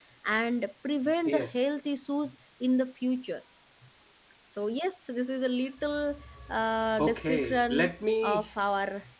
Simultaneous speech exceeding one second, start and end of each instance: 7.0-8.5

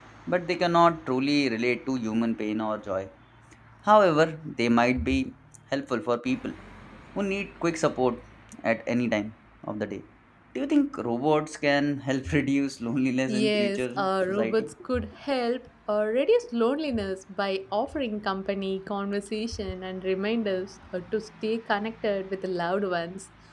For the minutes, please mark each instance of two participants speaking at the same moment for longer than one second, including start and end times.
13.3-14.7

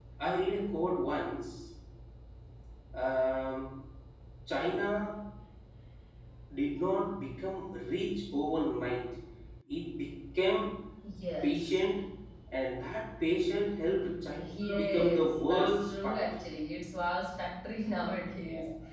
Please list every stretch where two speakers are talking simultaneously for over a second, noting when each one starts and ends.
14.8-16.4

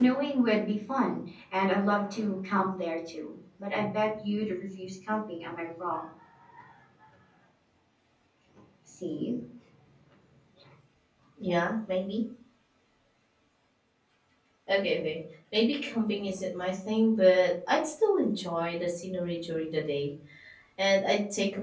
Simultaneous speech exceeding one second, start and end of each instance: none

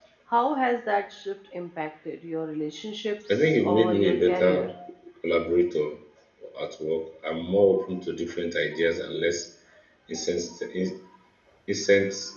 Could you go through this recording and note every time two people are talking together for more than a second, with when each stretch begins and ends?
3.3-4.7

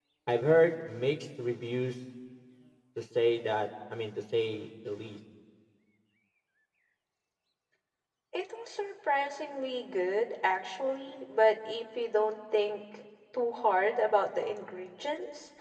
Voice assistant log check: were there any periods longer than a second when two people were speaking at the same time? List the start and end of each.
none

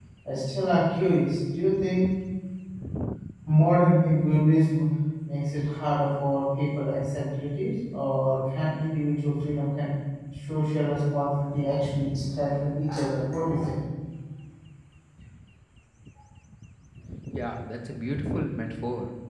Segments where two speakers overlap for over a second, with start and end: none

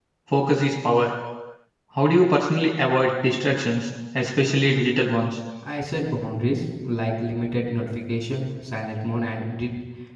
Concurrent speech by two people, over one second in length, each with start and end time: none

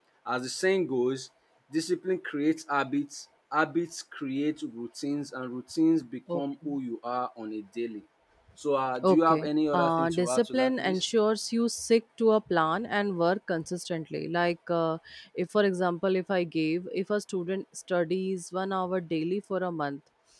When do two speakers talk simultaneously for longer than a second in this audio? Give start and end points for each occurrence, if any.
9.0-11.0

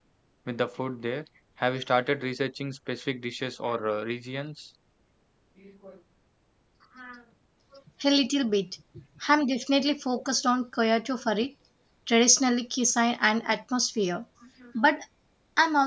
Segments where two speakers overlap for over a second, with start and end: none

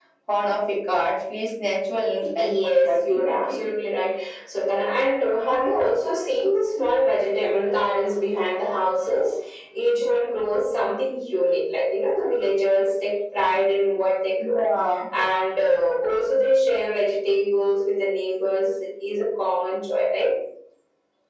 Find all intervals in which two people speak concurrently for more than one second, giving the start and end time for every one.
2.4-3.7

